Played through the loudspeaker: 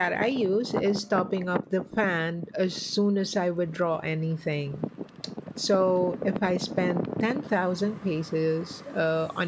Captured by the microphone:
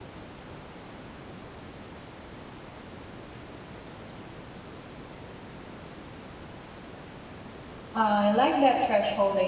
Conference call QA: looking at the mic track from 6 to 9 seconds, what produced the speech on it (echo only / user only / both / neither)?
user only